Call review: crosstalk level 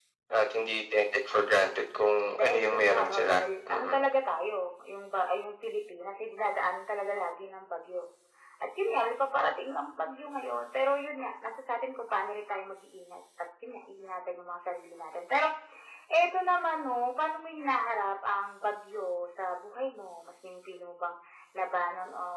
present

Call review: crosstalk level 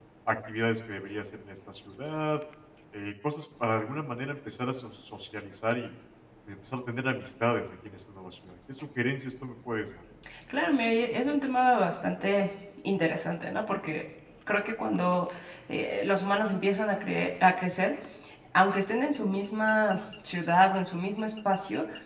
none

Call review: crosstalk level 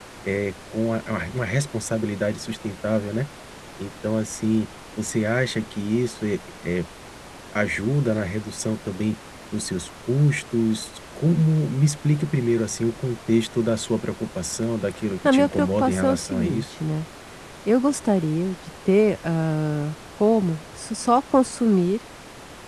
present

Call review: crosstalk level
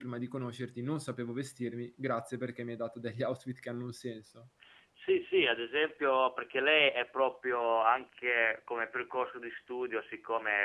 none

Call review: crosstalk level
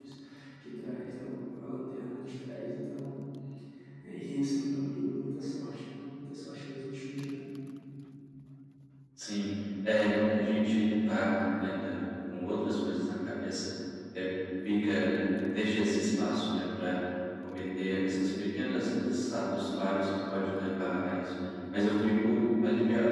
none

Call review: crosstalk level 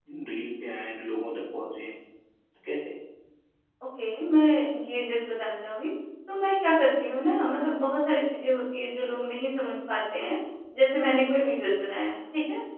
none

